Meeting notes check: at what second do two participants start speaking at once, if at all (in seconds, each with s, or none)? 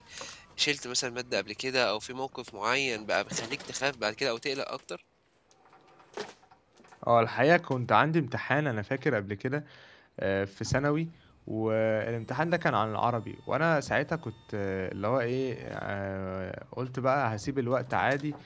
none